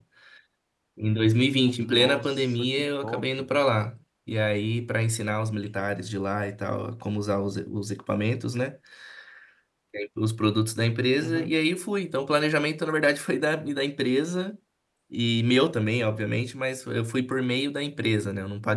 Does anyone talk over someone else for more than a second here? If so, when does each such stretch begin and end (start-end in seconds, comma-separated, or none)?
1.8-3.3